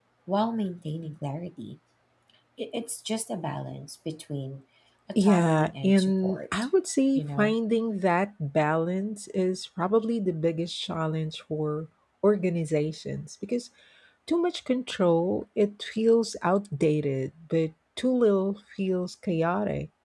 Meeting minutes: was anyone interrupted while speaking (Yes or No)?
Yes